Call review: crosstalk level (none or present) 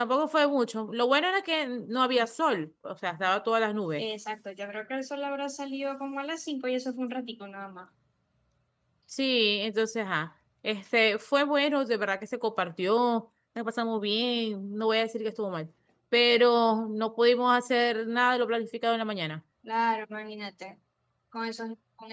none